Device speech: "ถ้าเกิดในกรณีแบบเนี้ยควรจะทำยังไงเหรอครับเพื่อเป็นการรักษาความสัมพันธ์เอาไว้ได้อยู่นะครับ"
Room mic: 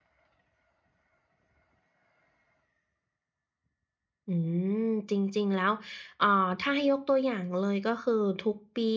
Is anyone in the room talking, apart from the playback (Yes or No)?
Yes